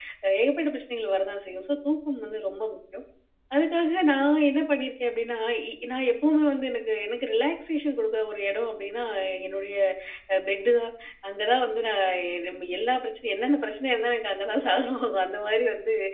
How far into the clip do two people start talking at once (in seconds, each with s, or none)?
none